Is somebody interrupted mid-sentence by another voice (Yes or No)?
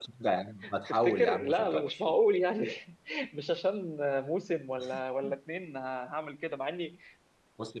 Yes